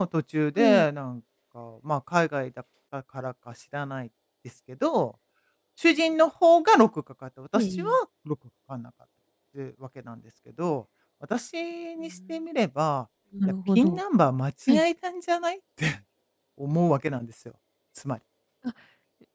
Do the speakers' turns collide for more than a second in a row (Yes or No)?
No